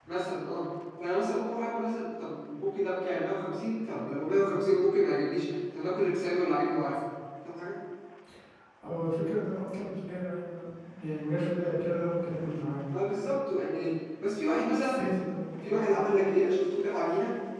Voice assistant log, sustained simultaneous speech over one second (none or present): none